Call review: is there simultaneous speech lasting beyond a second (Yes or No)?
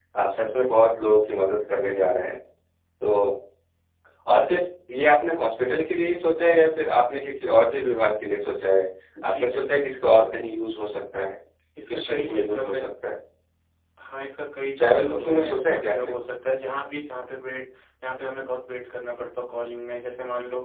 Yes